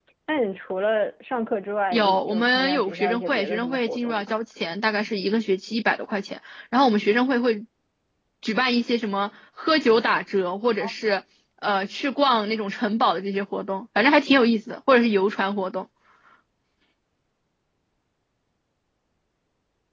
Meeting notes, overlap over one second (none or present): present